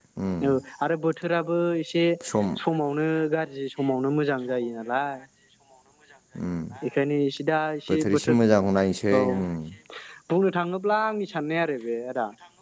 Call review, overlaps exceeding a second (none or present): none